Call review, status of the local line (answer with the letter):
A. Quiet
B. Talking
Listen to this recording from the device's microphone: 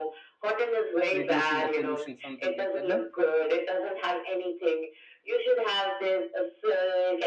B